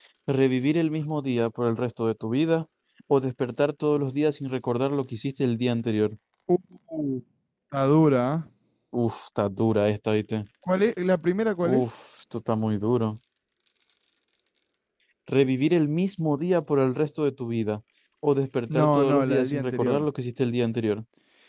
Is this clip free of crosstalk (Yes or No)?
No